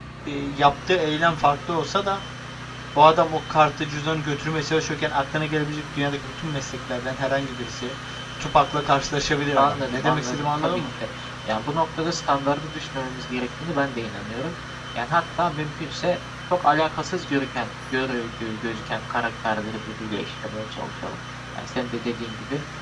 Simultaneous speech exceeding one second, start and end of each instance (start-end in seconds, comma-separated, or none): 9.6-10.8